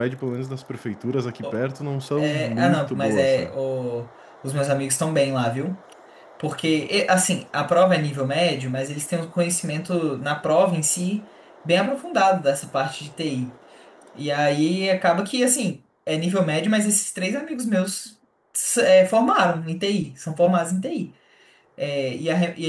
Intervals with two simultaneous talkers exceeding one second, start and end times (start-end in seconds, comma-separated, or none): 2.2-3.5